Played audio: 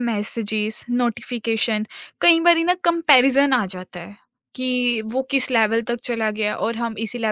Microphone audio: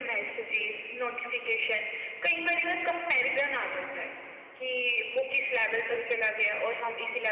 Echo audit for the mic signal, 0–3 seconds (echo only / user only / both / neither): echo only